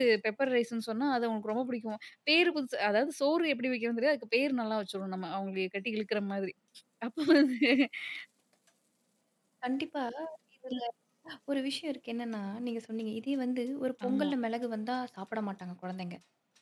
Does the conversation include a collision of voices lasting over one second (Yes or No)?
No